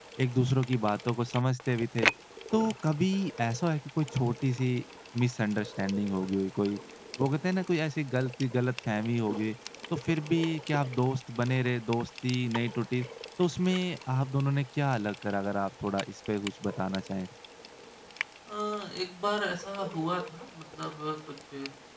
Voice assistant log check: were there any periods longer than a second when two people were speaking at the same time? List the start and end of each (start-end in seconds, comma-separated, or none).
none